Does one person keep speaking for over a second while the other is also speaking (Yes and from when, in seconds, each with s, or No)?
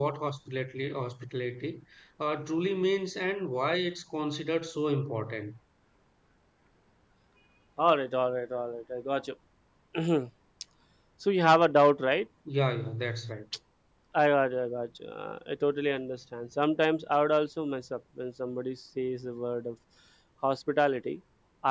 No